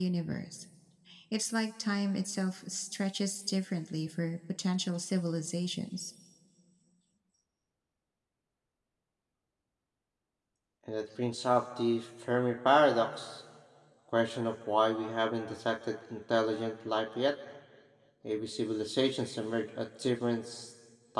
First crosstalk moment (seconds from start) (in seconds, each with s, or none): none